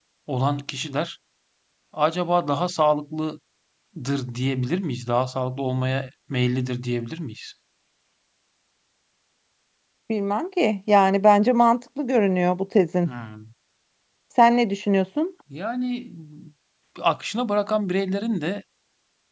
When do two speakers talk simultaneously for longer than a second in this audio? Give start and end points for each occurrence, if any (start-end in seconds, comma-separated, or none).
none